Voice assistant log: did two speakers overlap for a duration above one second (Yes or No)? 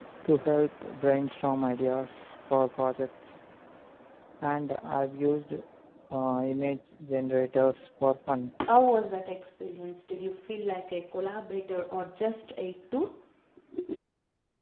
No